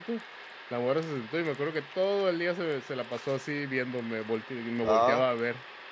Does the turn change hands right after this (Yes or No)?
No